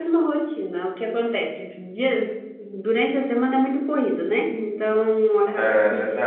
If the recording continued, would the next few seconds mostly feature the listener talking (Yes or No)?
No